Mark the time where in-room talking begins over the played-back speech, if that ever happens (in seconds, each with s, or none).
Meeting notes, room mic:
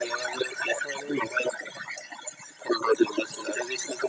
none